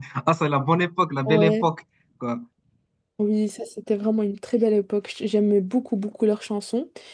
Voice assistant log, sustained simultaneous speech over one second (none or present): none